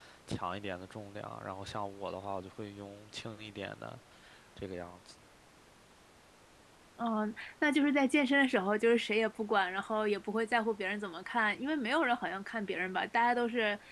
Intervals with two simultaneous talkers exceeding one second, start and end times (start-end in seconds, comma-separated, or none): none